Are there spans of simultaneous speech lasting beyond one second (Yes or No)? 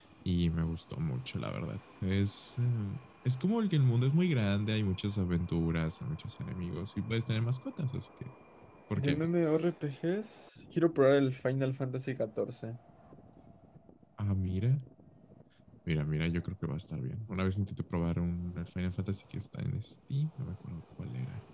No